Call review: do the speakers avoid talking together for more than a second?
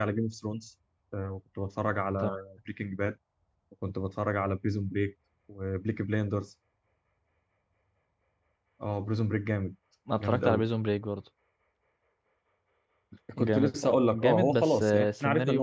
No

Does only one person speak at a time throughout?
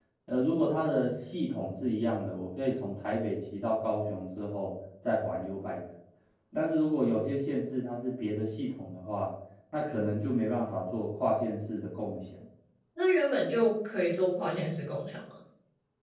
Yes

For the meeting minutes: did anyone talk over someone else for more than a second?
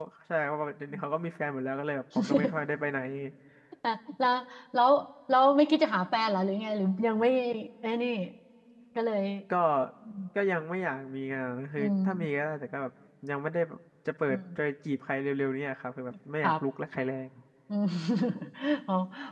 No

